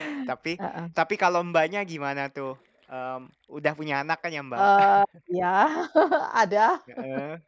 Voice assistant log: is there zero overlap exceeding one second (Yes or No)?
Yes